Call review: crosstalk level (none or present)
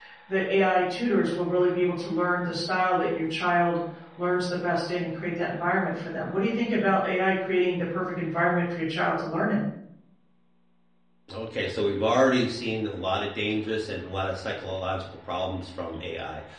none